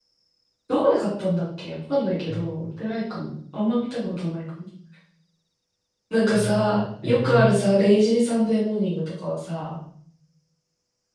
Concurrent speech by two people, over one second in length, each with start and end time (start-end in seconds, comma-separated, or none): 6.3-7.5